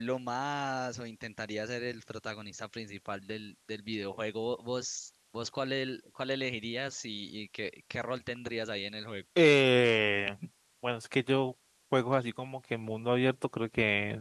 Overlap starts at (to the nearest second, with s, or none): none